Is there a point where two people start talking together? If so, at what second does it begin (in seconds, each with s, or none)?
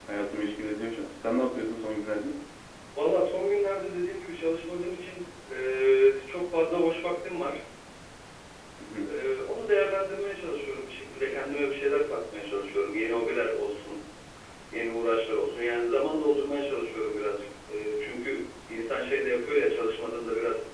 none